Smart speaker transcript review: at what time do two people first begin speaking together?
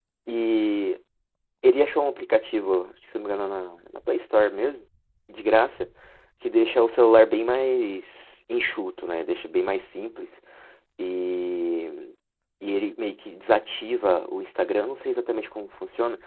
none

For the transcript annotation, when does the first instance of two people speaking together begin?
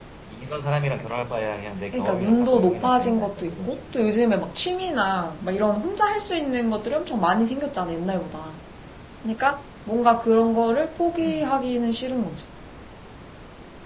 2 s

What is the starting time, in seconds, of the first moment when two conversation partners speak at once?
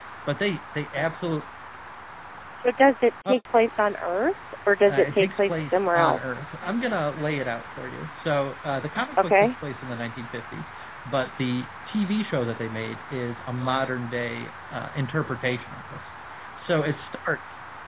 5 s

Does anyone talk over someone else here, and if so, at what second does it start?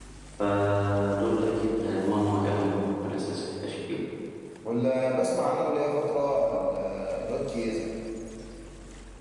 none

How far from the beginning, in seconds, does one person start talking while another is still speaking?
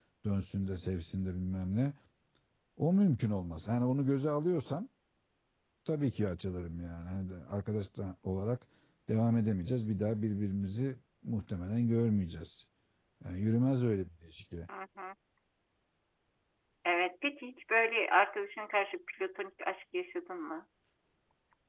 none

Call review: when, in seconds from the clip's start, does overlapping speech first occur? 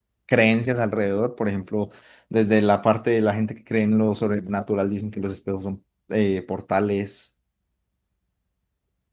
none

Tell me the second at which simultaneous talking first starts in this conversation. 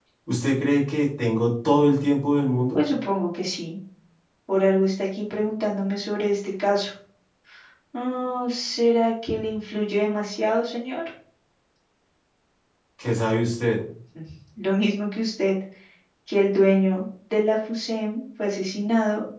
none

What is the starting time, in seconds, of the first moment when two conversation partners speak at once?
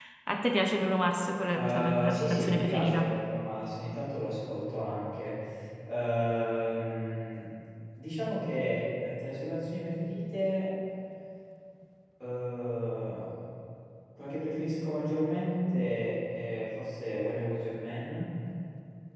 2 s

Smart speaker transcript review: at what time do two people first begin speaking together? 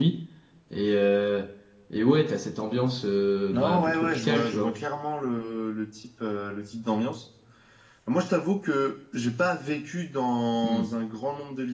4 s

